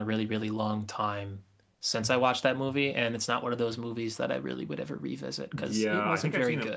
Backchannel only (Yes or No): No